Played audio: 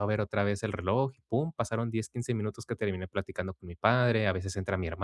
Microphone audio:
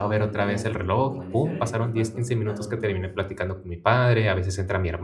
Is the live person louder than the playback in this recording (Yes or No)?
No